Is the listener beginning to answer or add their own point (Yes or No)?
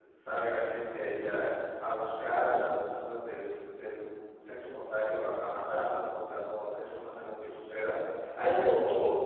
Yes